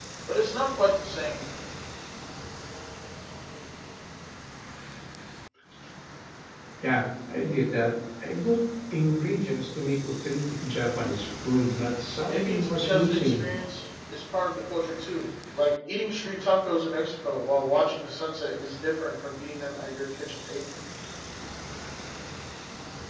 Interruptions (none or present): present